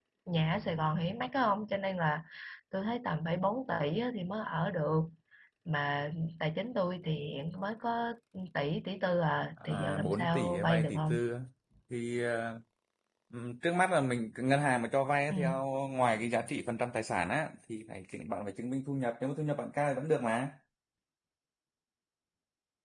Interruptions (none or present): present